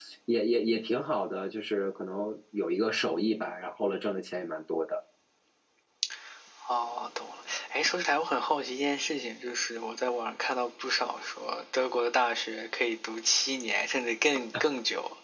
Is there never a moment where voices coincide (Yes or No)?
Yes